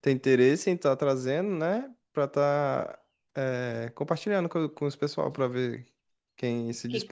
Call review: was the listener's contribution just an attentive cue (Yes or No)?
No